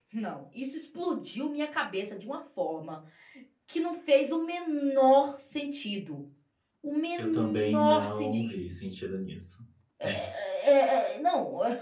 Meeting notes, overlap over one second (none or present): present